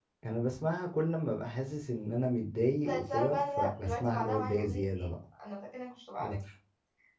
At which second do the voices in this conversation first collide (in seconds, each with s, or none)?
2.8 s